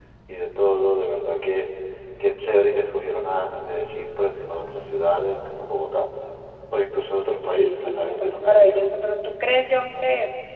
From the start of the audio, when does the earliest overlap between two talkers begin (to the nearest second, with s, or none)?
7 s